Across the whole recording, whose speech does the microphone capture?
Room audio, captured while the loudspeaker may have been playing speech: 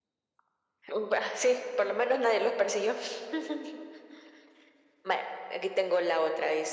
echo only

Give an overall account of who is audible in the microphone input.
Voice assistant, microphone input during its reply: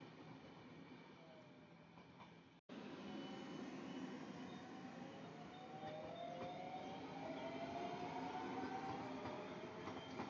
neither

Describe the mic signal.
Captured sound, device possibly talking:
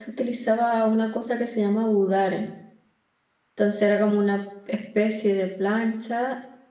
user only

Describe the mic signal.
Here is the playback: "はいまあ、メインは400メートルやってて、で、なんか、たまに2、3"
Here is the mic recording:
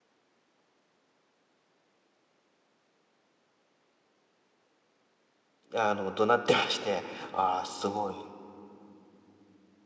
user only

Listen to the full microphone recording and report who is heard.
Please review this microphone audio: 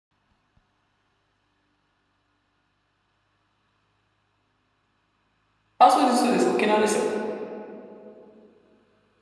user only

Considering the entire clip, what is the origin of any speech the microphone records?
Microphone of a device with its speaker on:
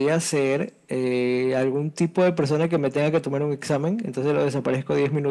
echo only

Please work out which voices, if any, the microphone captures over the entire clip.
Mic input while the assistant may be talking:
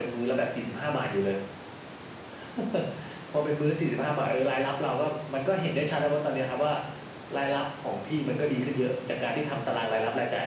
echo only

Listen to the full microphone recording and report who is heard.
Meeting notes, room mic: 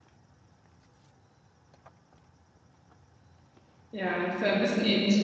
user only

